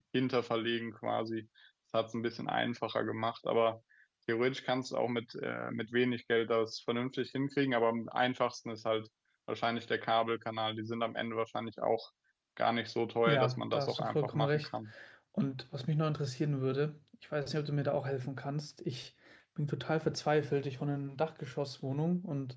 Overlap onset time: 13.3 s

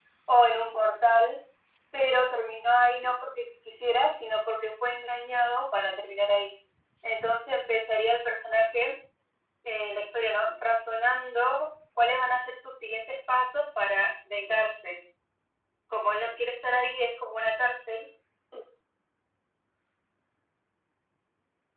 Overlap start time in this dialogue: none

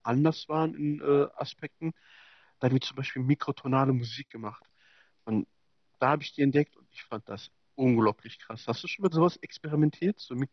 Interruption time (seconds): none

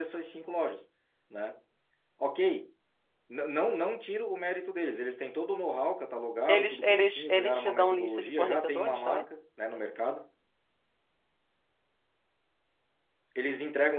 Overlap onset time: 6.5 s

